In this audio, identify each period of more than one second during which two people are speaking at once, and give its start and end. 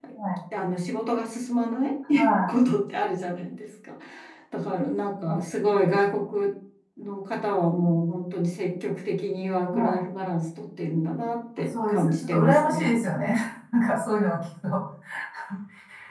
11.7-12.9

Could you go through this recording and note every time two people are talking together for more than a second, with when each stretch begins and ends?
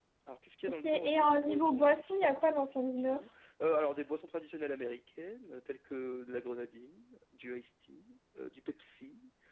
0.8-3.2

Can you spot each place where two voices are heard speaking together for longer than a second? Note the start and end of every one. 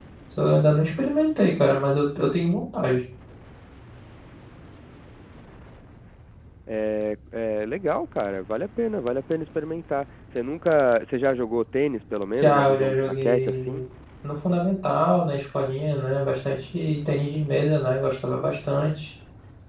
12.4-13.8

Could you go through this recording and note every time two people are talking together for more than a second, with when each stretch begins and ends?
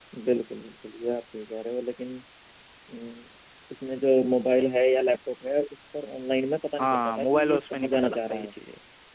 6.8-8.5

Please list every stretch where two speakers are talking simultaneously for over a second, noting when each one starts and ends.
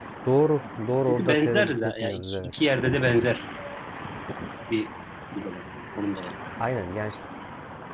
1.1-2.5

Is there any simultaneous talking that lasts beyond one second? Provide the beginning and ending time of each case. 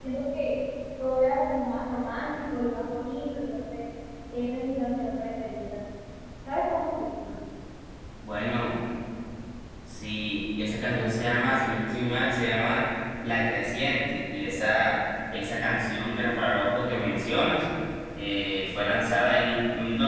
none

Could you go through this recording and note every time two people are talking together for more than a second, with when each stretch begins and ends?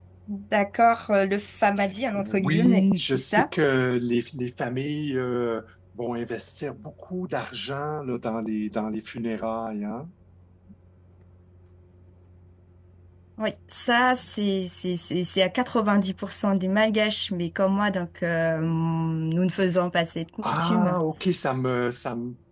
2.1-3.5

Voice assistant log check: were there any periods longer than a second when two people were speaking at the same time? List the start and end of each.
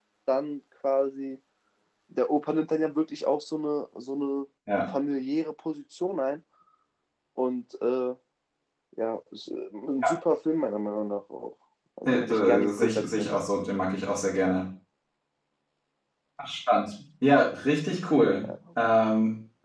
12.1-13.3

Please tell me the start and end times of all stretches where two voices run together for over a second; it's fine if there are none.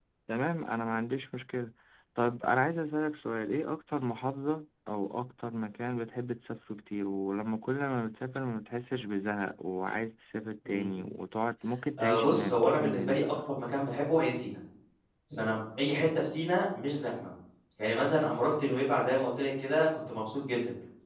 12.0-13.4

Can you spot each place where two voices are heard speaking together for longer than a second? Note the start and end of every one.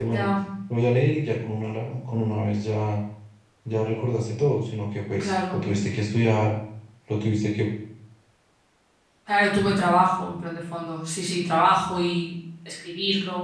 none

